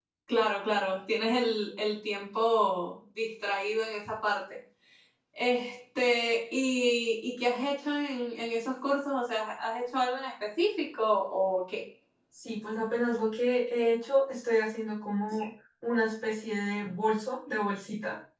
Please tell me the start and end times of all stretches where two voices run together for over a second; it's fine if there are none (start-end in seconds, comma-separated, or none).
none